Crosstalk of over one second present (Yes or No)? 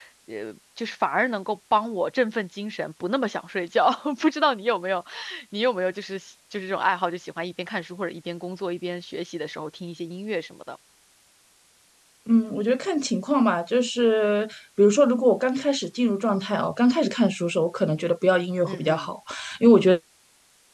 No